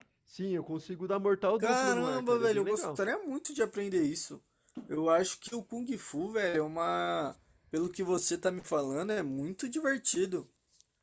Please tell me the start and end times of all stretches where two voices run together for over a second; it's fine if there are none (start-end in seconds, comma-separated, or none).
1.6-3.0